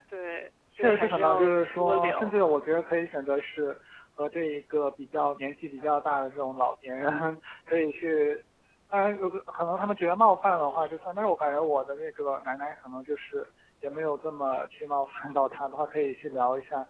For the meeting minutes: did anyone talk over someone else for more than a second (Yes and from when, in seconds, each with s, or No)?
Yes, from 0.8 s